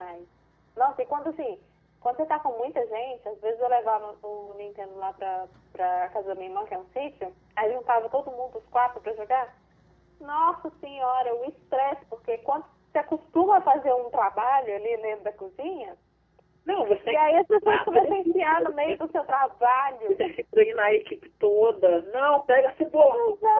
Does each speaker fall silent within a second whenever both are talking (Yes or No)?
No